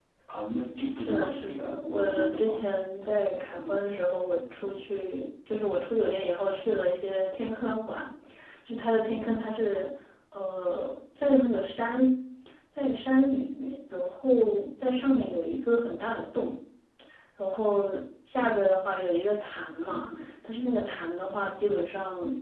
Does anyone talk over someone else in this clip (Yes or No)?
Yes